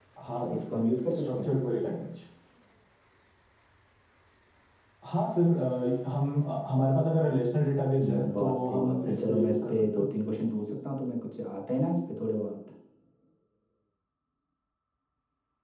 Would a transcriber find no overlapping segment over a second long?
No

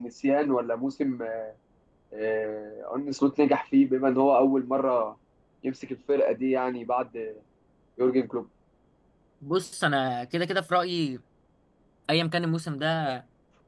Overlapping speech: No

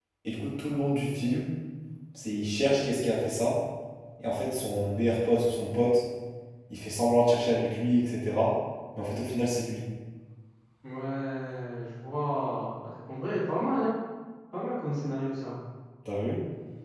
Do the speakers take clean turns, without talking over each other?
Yes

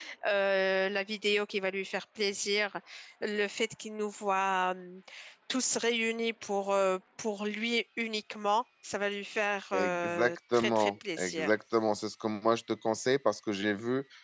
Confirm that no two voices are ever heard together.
No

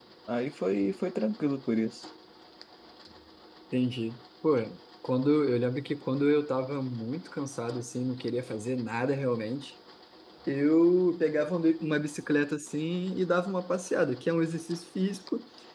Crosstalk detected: No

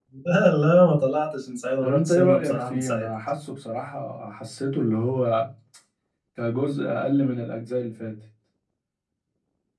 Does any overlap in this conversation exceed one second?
Yes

